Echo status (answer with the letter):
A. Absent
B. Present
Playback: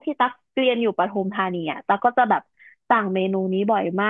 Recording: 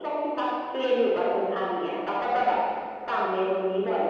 B